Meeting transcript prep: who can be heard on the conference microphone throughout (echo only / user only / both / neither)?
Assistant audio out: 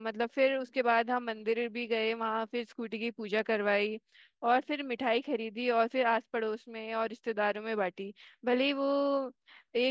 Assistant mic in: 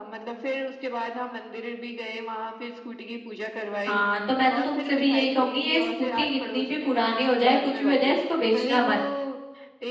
both